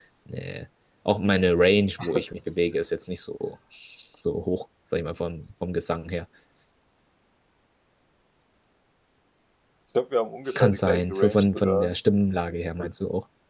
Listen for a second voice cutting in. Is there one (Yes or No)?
Yes